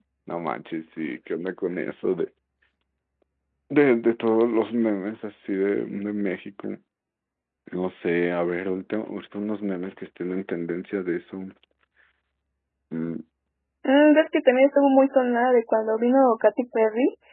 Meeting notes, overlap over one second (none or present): none